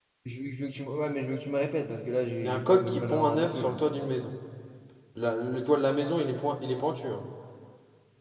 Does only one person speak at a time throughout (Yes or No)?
No